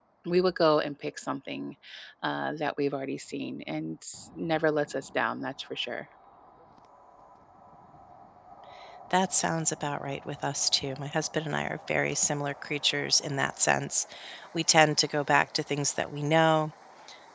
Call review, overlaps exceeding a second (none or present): none